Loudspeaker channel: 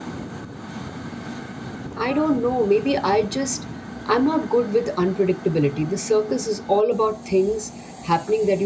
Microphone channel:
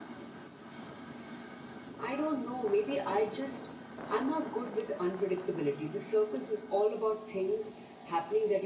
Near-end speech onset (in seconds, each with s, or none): none